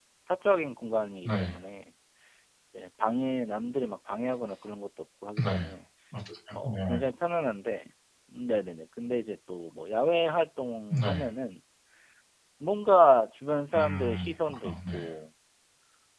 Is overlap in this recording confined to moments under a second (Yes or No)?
No